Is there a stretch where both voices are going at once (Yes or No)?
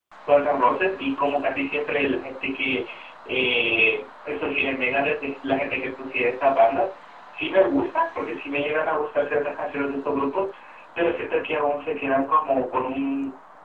No